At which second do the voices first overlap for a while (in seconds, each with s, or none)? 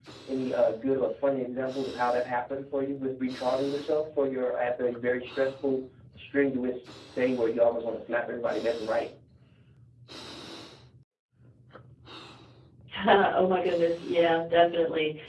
none